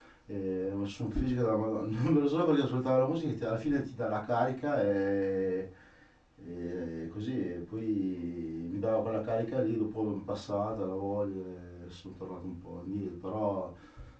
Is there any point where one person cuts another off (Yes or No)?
No